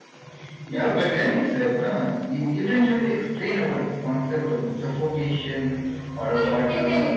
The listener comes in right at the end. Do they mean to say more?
Yes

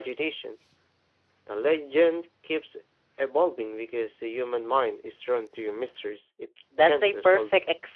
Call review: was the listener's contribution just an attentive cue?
No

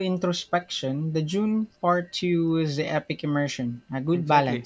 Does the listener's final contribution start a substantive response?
Yes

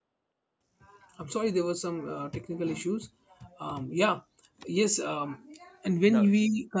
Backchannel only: Yes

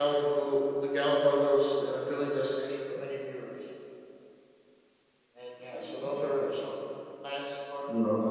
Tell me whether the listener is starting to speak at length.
No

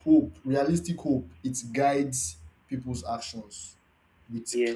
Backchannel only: Yes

